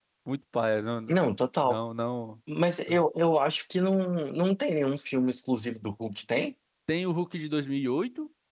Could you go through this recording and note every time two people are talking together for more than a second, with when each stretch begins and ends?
none

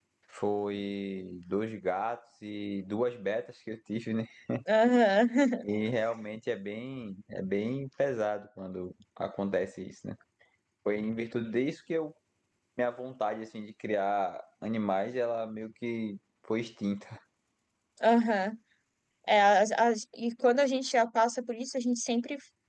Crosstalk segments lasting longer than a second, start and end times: none

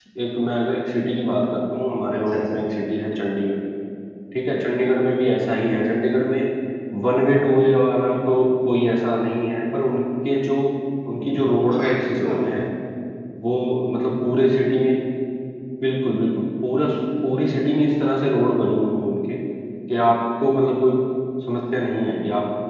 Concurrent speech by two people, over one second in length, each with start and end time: 11.2-12.4

